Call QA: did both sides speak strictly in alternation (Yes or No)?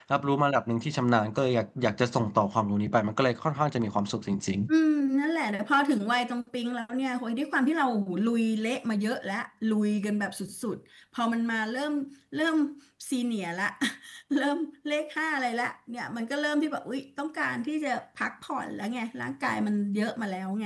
Yes